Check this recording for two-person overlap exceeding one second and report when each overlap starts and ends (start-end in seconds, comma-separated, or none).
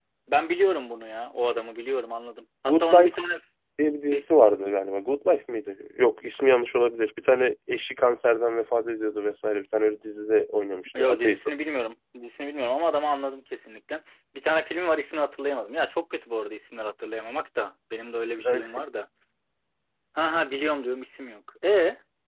none